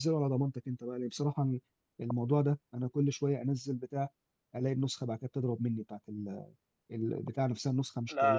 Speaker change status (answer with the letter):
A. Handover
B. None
A